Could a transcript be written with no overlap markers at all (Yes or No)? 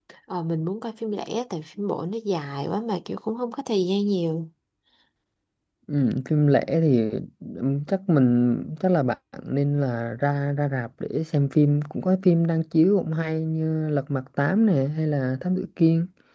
Yes